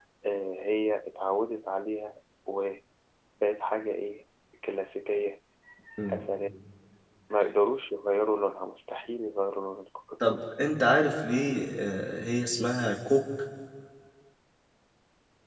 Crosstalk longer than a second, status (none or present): none